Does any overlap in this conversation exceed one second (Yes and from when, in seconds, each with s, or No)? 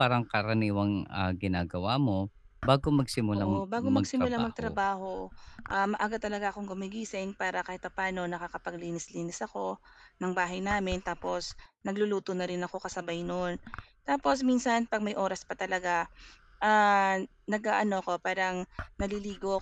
Yes, from 3.4 s